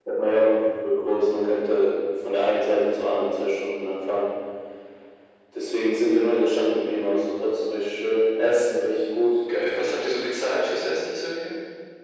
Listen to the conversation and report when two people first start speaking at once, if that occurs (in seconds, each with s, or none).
none